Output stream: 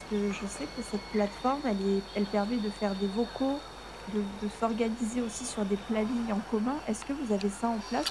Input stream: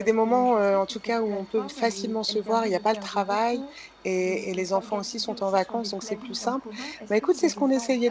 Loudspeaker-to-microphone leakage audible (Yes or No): Yes